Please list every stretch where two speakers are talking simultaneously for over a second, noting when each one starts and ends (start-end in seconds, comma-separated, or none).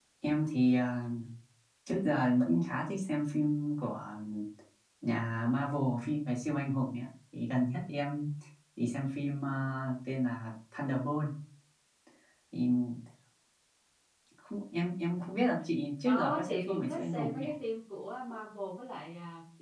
16.0-17.4